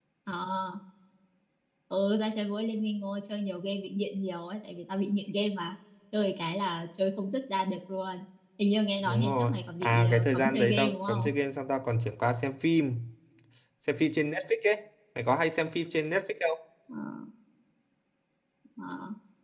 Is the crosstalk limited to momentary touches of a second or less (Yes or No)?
No